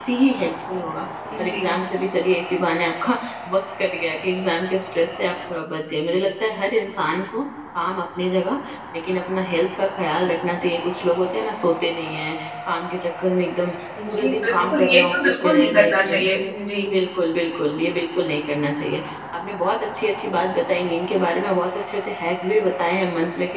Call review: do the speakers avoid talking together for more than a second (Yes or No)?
No